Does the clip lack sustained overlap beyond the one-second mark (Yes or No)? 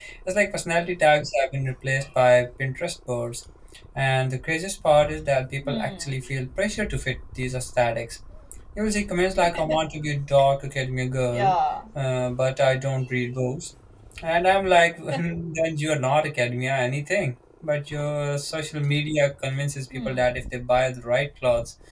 Yes